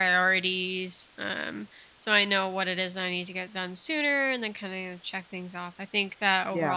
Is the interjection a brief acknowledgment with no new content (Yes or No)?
Yes